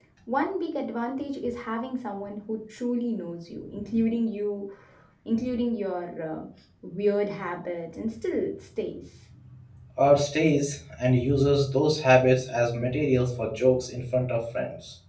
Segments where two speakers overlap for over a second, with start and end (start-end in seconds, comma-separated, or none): none